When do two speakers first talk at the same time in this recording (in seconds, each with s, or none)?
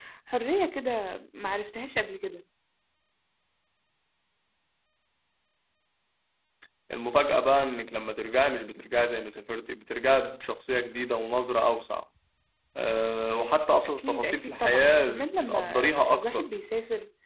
13.8 s